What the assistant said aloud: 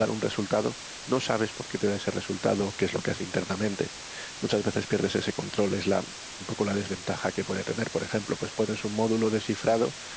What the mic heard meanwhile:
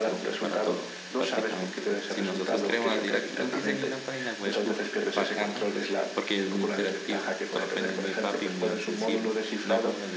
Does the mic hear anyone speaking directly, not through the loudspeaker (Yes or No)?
Yes